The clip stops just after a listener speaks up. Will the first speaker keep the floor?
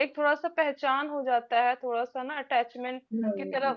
Yes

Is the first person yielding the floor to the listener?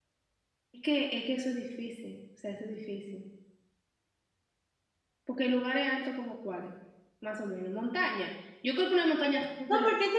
Yes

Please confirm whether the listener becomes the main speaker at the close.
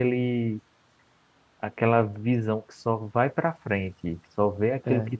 No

